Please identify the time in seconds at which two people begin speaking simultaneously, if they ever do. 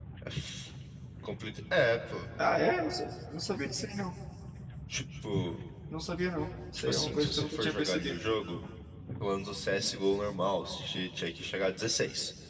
6.7 s

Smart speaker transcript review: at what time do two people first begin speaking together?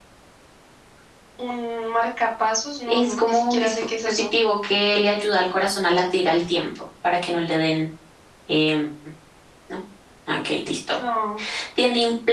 2.9 s

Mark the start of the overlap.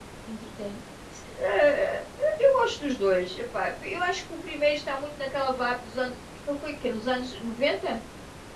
none

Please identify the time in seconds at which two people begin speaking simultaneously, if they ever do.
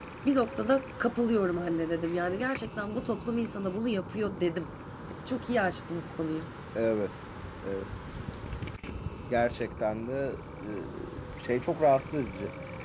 none

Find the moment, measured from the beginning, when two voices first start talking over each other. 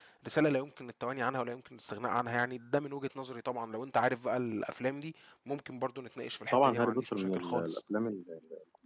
6.5 s

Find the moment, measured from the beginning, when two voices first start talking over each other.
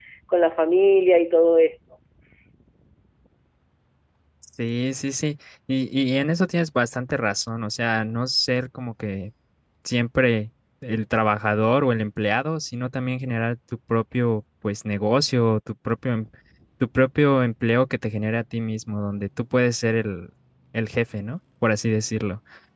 none

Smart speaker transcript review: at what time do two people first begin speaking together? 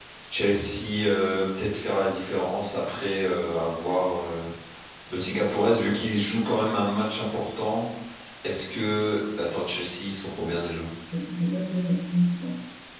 none

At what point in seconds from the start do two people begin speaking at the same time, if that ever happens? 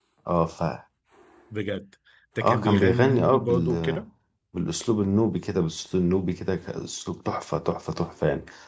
2.4 s

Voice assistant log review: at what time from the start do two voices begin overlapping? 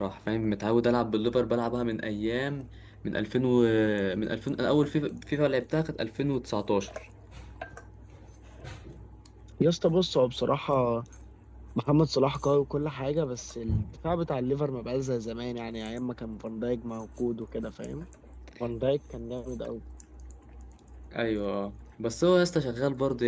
none

